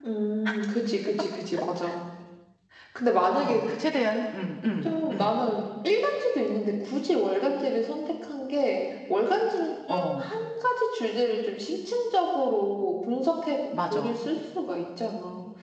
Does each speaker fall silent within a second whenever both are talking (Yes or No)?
Yes